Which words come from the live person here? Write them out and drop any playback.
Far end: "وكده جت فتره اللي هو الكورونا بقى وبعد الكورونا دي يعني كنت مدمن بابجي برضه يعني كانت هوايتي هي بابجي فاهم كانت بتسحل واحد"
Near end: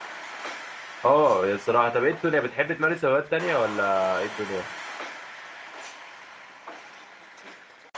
اه يا الصراحة طب ايه الدنيا بتحب تمارس هوايات تانية ولا ايه الدنيا

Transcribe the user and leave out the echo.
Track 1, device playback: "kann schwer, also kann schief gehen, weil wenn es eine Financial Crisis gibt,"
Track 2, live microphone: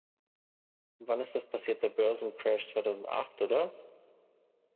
Wann ist das passiert? Der Börsencrash 2008, oder?

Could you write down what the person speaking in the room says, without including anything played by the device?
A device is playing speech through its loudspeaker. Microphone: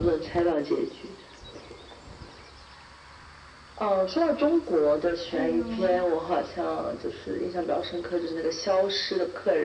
哎呦。

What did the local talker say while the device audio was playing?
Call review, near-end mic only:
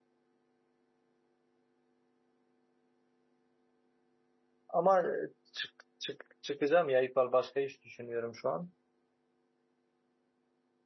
Ama e, çık, çık, çıkacağım ya İpal. Başka iş düşünüyorum şu an.

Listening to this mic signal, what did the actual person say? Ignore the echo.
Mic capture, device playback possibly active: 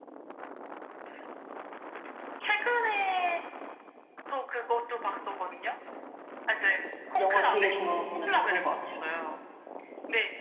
영화 되게 좋아하고, 약간 그런 것 같아요.

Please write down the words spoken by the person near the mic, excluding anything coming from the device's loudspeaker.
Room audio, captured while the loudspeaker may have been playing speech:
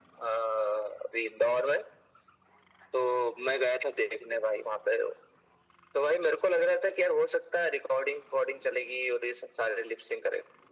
none

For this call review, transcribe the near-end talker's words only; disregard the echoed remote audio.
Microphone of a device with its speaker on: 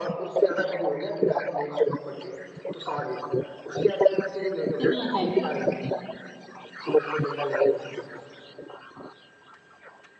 इतना टाइम

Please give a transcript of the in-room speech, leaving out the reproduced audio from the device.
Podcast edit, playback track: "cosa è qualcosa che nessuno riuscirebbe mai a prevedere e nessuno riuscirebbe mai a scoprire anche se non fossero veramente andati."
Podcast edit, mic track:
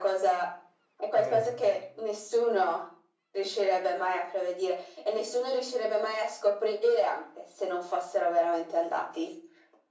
Non-

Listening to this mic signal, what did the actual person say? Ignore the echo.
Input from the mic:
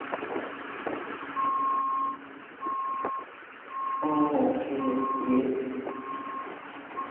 Oh, oke, oke.

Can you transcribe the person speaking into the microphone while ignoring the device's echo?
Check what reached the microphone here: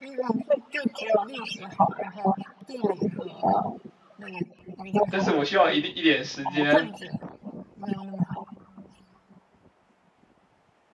但是我需要一定一点时间，

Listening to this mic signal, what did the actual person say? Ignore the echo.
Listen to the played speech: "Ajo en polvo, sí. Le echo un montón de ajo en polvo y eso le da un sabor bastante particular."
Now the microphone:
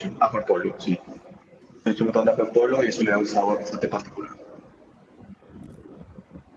none

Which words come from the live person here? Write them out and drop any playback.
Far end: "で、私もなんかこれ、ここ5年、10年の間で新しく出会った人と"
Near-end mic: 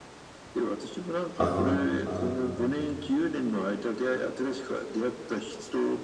あーあー

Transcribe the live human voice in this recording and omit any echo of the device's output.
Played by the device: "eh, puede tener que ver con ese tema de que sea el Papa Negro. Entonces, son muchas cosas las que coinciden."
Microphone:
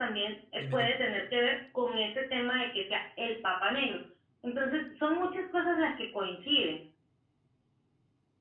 Dime, dime.

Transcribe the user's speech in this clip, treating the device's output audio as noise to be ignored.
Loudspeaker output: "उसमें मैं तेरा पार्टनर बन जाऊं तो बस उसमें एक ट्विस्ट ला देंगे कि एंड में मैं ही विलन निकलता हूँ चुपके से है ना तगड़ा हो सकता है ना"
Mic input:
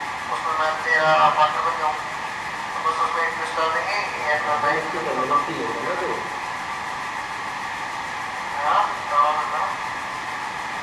हाँ हाँ वो मस्ती करने मस्ती लेता है ना जो

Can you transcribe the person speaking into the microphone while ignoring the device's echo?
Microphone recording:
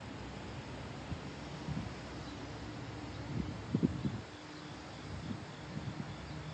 none

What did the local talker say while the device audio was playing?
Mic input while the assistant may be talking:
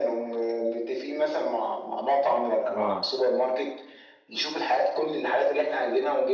اه

